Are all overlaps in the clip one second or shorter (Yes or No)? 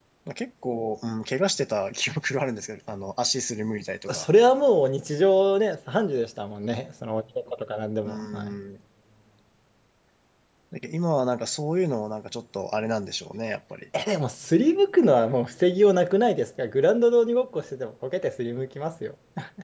Yes